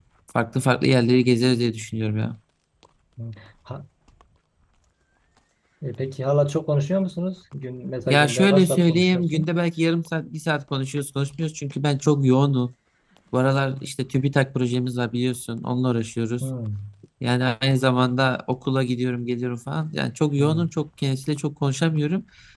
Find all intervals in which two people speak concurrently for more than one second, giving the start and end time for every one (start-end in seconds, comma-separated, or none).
8.1-9.5